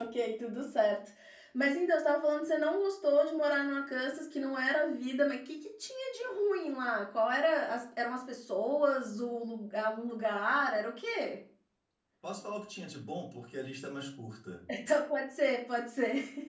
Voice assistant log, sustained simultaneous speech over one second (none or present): none